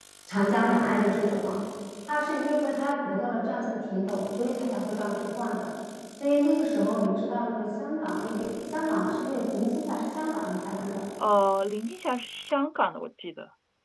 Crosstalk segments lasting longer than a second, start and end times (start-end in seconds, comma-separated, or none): none